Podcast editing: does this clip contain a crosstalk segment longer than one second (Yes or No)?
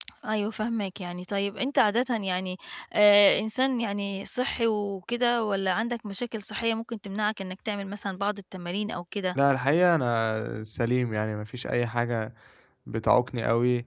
No